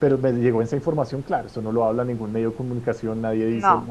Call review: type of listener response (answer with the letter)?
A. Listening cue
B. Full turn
A